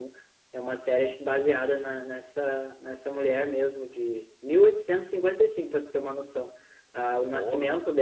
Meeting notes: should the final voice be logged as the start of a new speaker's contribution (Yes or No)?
No